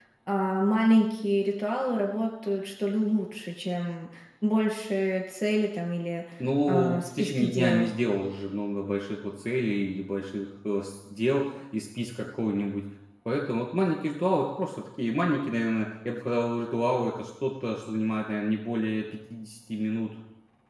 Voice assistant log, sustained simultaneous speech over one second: present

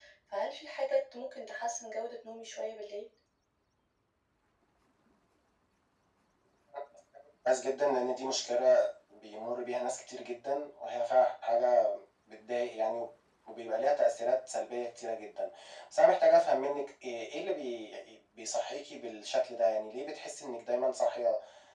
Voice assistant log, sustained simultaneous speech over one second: none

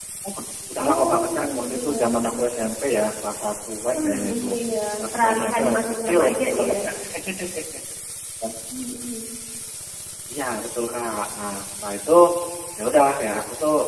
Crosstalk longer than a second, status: present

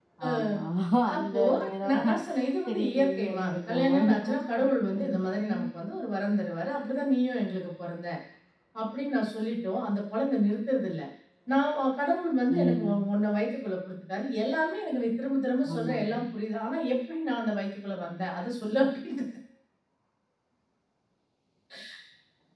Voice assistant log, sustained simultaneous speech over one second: present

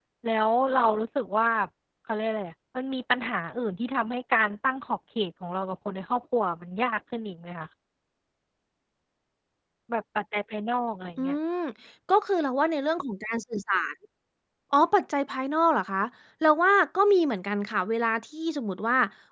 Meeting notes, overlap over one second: none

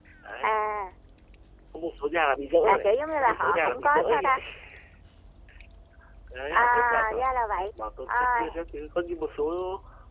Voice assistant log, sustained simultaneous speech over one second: present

